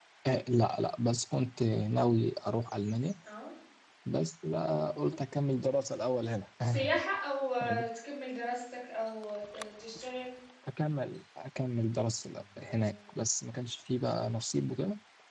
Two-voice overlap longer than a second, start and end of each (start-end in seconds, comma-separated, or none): none